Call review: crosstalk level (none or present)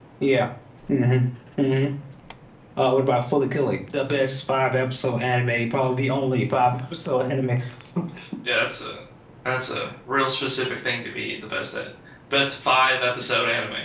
none